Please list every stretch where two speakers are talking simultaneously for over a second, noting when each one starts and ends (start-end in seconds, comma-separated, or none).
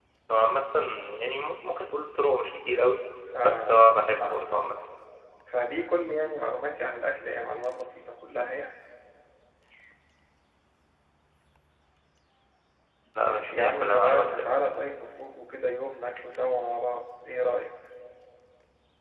3.4-4.7, 13.3-14.5